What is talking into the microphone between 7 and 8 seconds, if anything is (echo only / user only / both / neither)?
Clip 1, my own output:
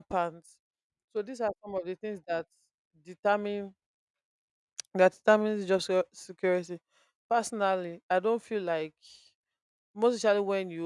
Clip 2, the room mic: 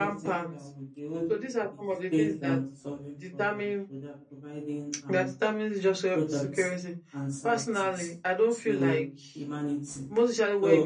both